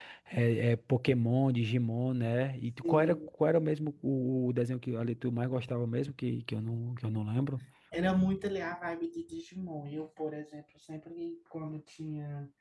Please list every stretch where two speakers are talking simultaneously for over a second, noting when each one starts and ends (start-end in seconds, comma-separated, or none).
none